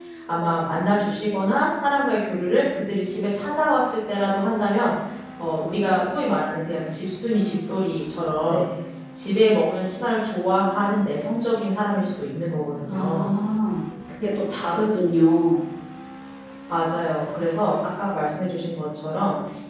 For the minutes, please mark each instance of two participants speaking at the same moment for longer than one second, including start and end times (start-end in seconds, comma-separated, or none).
none